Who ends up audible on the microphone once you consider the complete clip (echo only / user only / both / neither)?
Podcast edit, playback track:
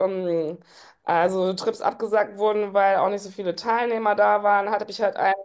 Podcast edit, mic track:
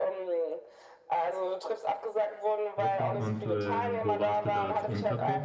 both